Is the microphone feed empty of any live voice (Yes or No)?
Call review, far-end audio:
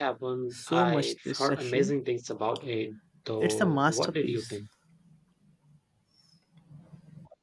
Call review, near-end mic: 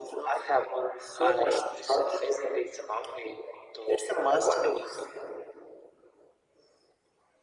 Yes